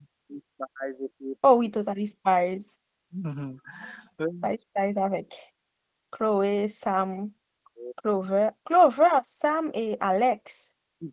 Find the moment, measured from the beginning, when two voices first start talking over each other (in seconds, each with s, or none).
none